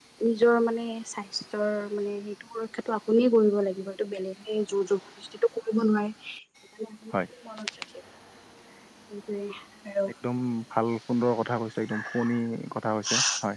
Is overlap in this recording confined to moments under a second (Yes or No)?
Yes